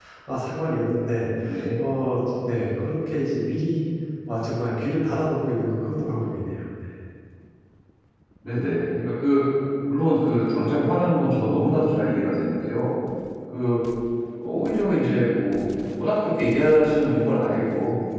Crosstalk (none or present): none